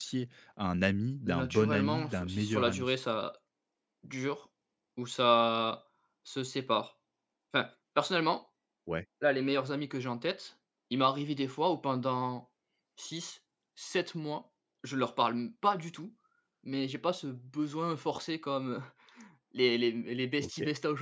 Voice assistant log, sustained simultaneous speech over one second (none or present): present